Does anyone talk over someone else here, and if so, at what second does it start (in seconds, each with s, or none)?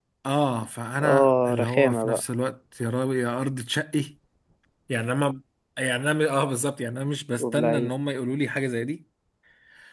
1.0 s